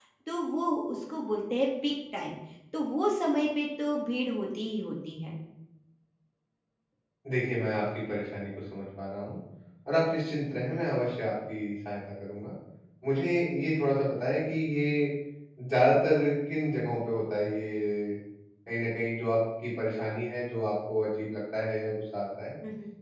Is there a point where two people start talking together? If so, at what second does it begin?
none

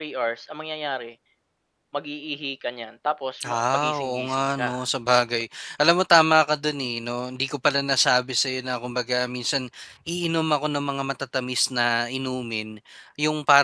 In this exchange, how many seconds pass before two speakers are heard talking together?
3.4 s

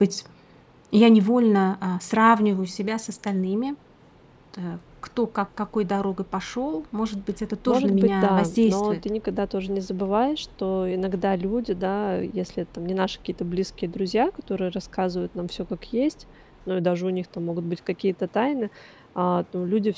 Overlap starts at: 7.7 s

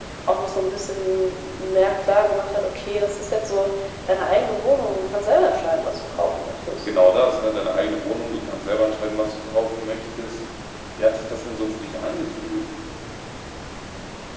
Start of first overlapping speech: none

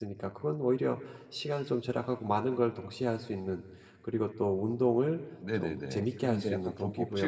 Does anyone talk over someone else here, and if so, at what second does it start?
5.4 s

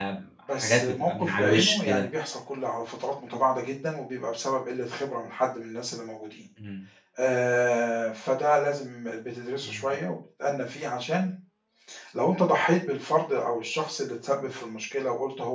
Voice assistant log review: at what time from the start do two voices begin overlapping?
0.5 s

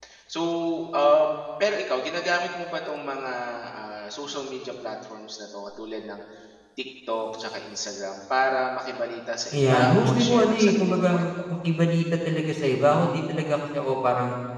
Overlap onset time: 9.5 s

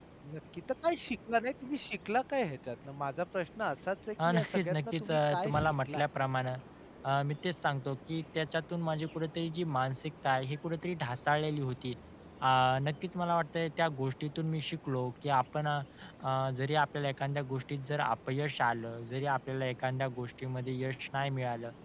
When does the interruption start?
4.2 s

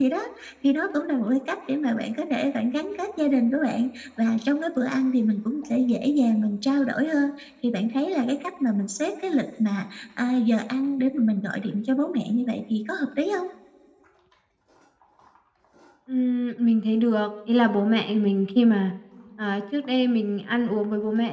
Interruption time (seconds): none

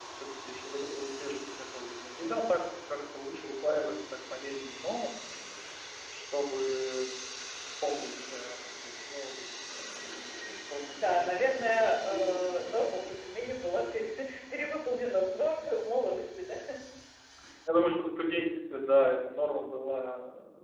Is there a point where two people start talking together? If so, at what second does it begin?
11.0 s

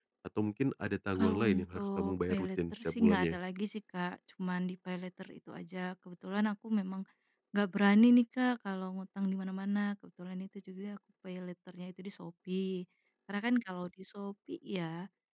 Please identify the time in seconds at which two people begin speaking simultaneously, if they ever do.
1.2 s

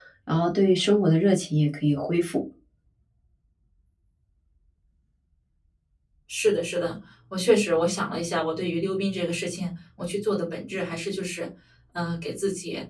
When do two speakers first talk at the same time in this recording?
none

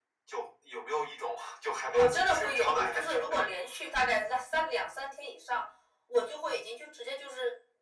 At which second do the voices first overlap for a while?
1.9 s

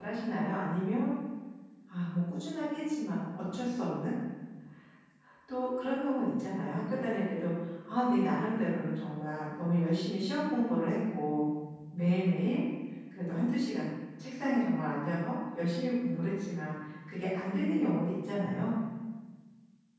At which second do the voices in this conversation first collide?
none

